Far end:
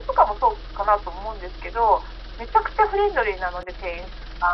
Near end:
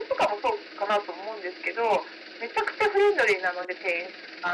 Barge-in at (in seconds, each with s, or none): none